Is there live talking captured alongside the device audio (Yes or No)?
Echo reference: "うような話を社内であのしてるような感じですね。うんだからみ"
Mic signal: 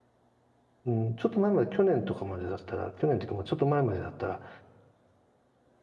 Yes